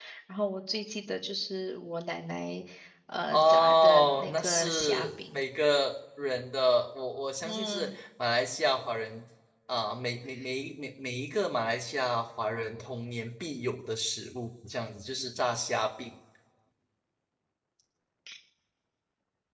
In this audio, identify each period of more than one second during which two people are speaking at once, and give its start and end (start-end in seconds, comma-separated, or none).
3.3-5.4